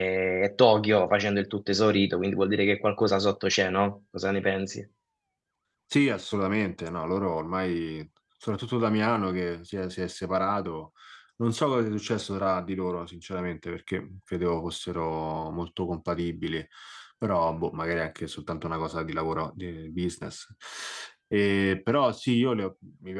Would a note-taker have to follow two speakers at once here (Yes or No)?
No